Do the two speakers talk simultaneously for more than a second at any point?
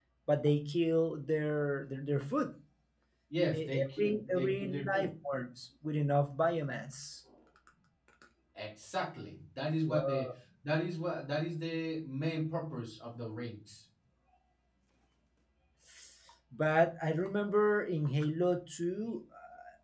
Yes, from 3.5 s

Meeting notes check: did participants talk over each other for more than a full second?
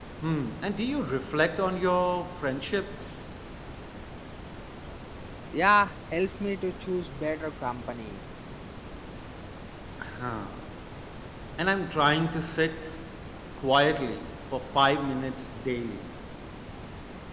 No

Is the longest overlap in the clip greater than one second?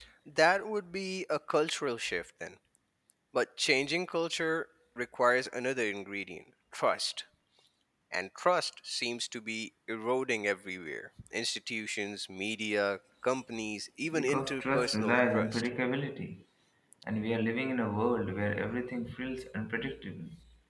Yes, from 14.1 s

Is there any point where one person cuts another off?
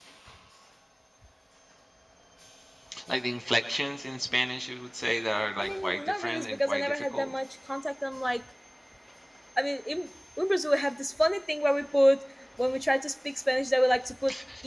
Yes, from 5.6 s

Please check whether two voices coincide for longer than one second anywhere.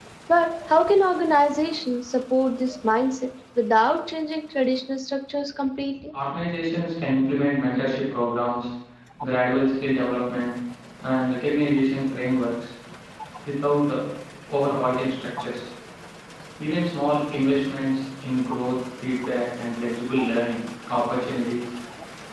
No

